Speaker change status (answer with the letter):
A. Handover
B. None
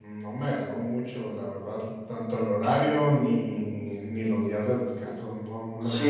A